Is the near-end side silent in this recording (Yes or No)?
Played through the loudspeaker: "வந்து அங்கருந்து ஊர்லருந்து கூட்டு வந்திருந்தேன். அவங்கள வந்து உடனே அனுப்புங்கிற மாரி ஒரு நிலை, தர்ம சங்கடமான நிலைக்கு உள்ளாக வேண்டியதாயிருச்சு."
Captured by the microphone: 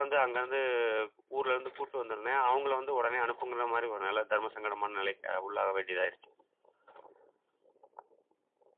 Yes